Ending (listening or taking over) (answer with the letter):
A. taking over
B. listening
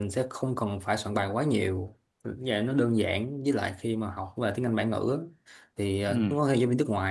B